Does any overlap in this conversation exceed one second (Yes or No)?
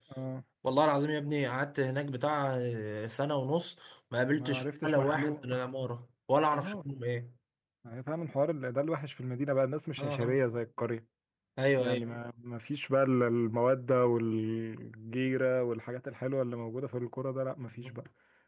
Yes